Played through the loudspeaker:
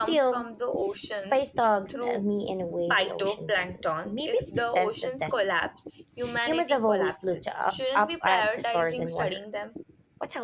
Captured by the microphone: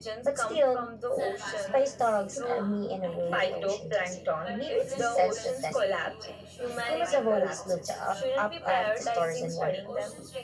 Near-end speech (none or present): present